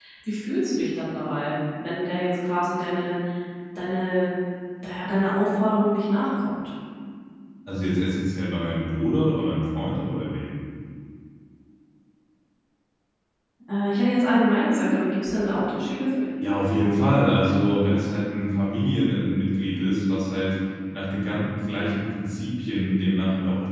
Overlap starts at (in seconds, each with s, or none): none